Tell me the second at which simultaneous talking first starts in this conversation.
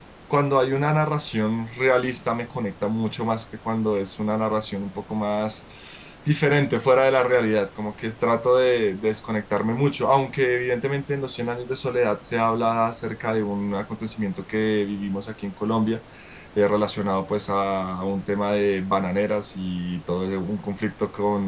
none

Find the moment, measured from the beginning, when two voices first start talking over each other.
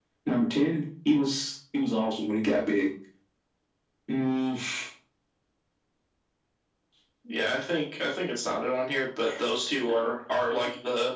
none

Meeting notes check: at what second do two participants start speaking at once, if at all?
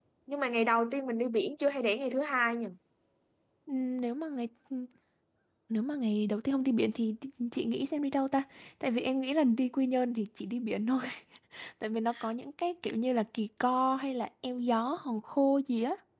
none

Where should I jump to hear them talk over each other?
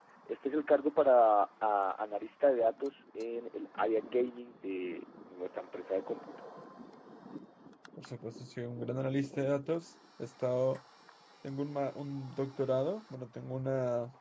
none

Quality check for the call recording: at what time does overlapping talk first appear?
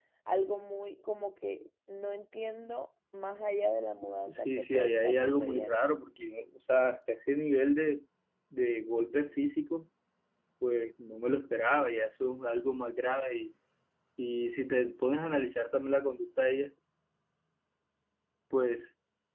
4.3 s

